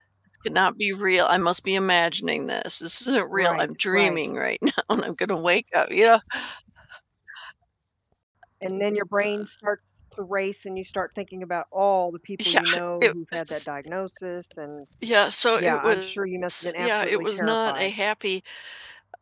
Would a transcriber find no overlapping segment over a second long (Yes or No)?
No